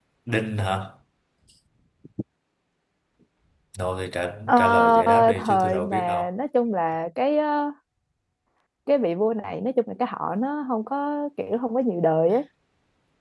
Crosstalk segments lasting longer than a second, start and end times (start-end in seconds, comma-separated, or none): 4.5-6.3